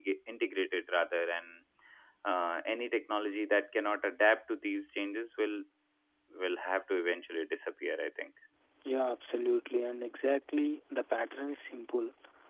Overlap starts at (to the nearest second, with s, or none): none